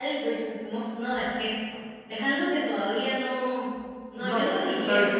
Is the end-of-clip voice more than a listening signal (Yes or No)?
Yes